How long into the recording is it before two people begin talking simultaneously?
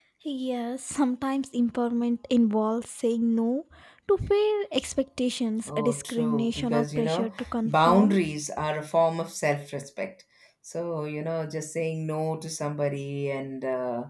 5.7 s

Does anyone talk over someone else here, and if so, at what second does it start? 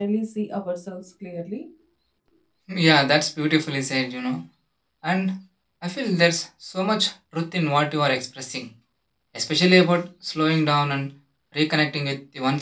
none

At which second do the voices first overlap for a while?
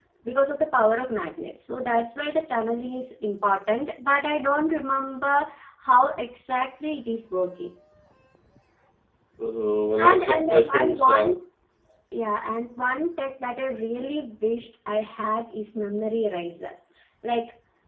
10.0 s

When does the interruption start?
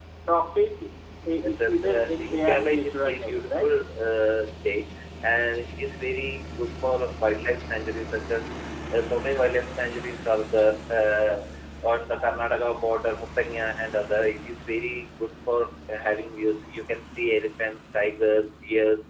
1.4 s

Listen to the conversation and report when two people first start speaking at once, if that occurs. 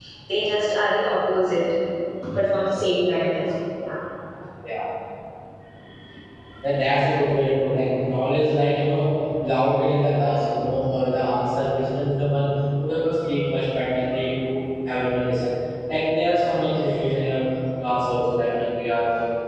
none

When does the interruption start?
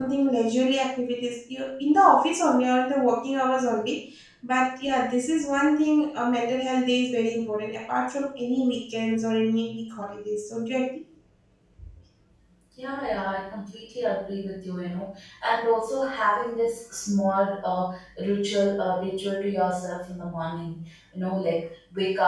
none

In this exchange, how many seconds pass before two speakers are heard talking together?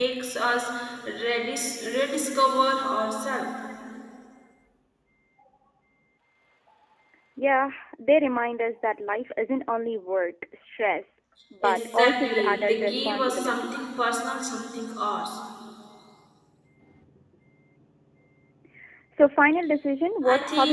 11.6 s

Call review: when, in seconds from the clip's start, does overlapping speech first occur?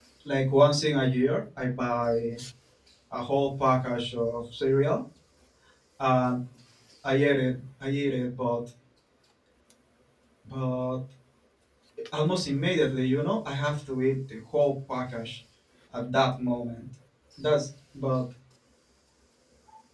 none

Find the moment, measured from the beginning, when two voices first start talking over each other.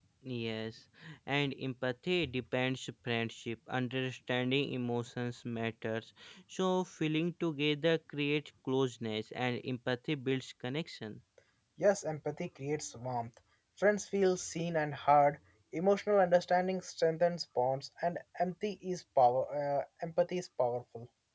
none

